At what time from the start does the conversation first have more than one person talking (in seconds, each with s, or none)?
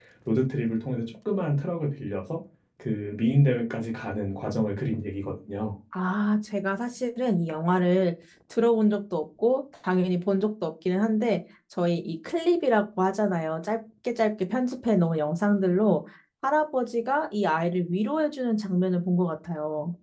none